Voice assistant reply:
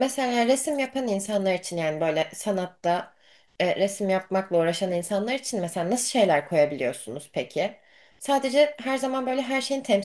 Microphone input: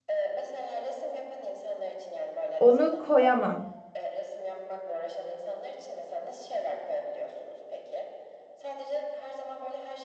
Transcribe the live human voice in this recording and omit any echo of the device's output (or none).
onu koyamam.